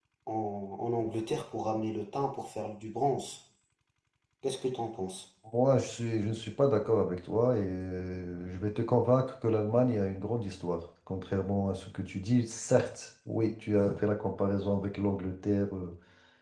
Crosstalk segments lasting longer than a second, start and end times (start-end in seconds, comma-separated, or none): none